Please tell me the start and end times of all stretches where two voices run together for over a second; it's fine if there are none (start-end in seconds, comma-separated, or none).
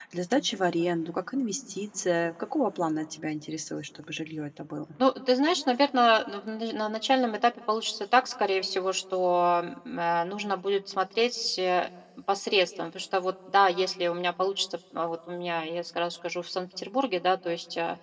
none